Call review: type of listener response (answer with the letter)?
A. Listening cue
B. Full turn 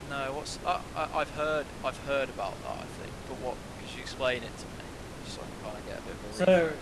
B